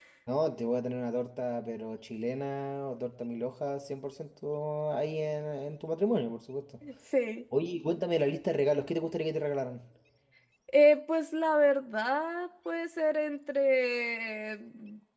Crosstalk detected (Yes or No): No